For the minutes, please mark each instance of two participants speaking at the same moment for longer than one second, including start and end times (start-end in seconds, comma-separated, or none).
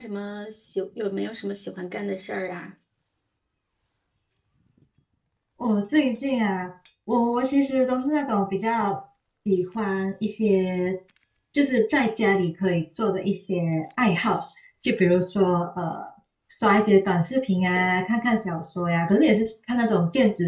none